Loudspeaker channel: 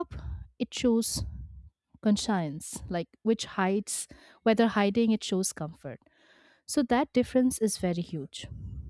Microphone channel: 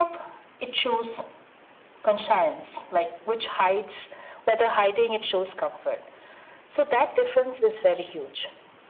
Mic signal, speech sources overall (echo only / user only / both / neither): echo only